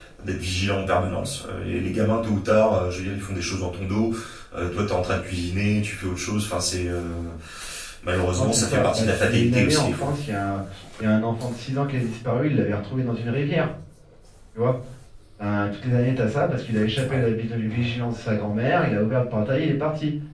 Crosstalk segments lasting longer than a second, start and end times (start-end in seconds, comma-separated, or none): 8.3-10.1